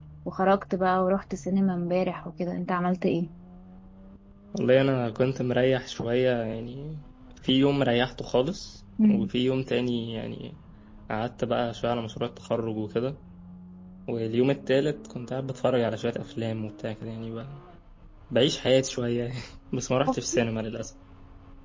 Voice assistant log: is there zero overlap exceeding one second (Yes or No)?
Yes